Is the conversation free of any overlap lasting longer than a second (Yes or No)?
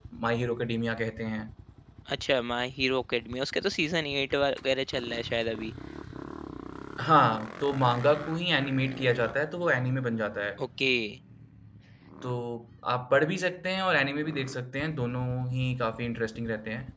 Yes